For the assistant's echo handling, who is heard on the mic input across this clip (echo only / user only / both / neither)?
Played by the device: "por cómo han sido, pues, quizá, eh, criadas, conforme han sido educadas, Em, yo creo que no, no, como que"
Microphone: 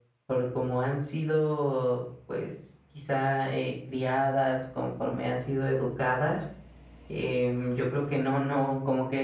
echo only